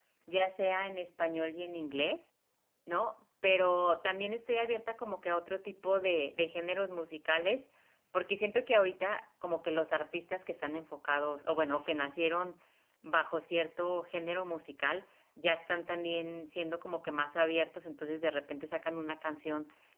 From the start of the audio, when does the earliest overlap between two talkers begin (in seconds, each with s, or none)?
none